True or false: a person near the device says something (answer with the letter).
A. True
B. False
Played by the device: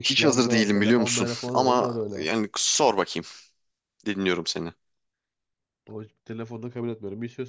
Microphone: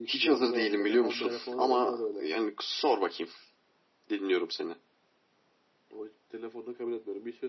B